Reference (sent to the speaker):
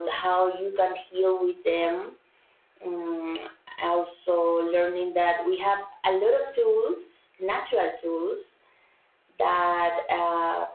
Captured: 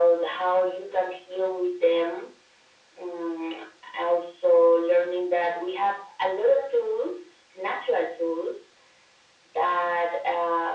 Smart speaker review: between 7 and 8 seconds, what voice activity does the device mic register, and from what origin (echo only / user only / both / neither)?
echo only